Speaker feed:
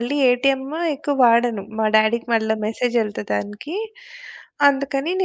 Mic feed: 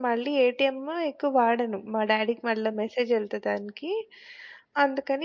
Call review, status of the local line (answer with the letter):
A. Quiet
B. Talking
A